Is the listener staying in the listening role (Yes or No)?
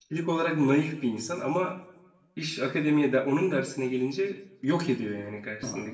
No